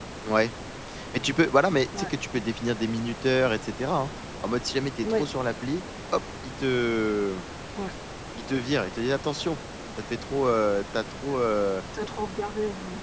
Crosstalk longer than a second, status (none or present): none